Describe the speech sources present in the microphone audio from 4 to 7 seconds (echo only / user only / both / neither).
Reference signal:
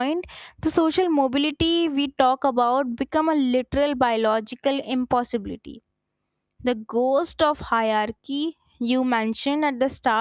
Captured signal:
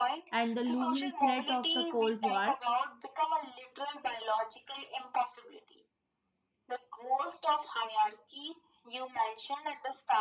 echo only